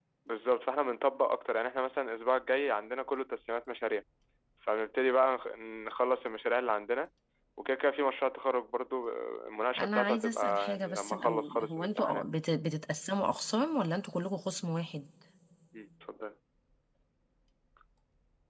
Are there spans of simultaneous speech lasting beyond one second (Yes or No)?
Yes